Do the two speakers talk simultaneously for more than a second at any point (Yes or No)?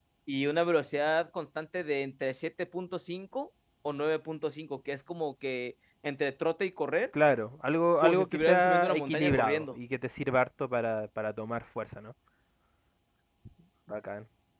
Yes